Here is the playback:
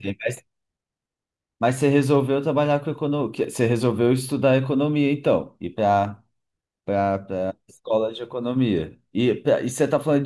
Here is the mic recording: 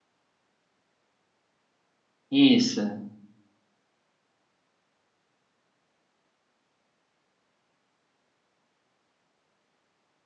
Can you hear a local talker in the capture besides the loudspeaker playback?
Yes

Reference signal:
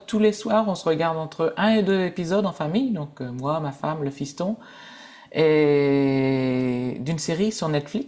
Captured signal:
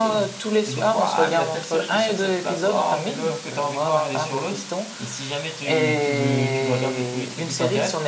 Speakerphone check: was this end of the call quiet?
No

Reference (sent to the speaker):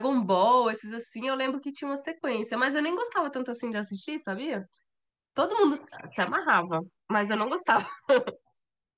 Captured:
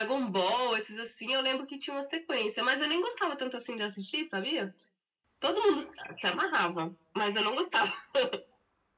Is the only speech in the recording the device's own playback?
Yes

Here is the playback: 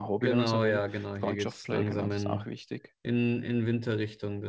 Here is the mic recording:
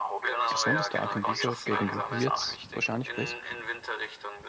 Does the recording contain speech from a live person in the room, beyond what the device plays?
Yes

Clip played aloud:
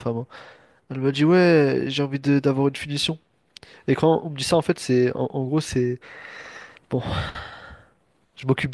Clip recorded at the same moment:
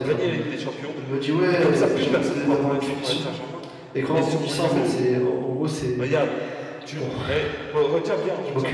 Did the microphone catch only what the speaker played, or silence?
No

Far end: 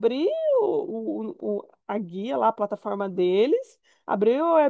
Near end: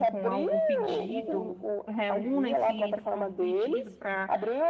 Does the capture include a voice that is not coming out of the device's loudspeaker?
Yes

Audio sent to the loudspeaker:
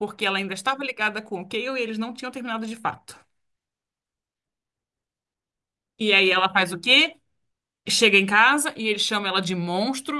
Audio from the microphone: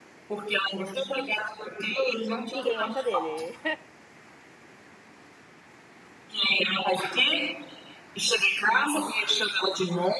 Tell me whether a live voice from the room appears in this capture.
Yes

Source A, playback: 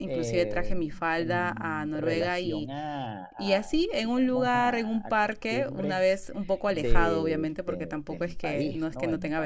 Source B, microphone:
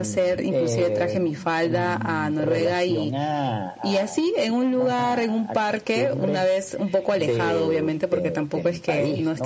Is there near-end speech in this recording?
No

